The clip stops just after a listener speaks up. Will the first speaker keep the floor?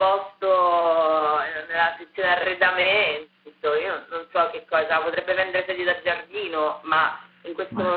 Yes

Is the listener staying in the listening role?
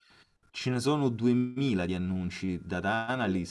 Yes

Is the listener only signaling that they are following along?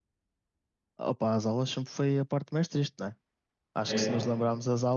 Yes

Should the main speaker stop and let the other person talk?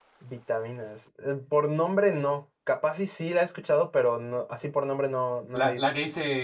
Yes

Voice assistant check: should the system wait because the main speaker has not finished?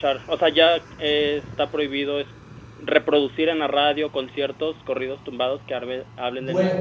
No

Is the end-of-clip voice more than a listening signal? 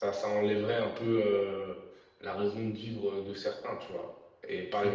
No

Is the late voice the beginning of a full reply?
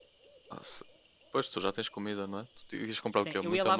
Yes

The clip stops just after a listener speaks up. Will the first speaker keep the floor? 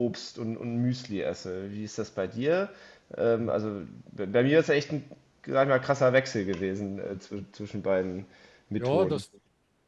No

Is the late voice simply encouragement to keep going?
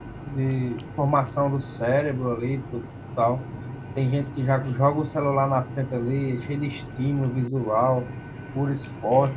Yes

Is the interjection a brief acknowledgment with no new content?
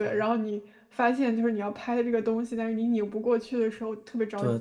No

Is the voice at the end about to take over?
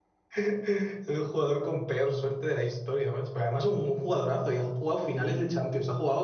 No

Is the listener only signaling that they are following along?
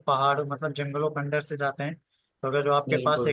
Yes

